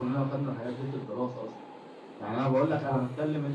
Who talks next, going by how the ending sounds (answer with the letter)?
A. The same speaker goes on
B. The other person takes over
A